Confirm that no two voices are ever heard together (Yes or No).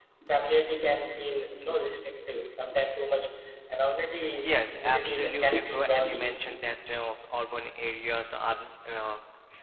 No